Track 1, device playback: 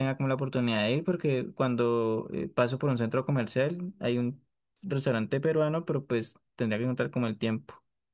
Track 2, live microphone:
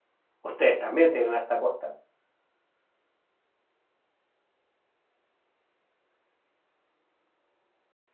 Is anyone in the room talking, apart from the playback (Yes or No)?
Yes